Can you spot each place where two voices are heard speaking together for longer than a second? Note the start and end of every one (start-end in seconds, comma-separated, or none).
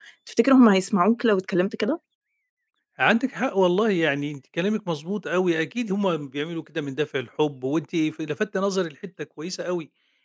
none